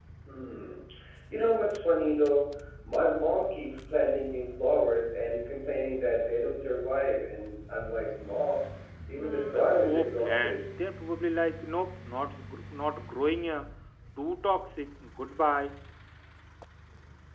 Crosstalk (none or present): present